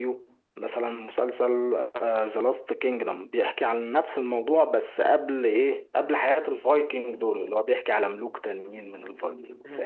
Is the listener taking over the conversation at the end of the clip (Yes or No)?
Yes